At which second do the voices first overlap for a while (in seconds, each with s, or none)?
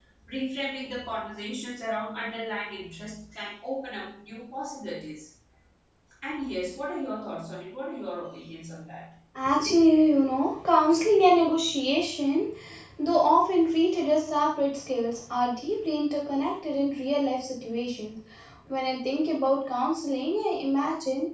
none